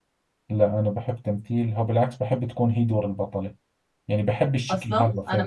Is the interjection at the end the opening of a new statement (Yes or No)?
Yes